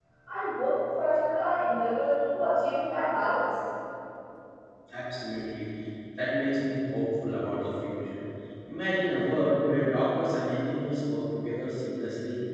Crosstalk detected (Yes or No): No